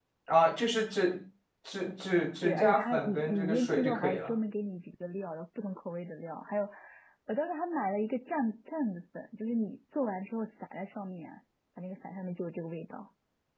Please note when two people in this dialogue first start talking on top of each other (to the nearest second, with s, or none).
2 s